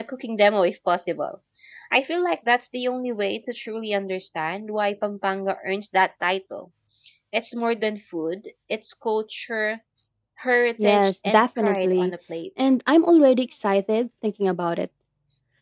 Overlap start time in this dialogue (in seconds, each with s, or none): 10.8 s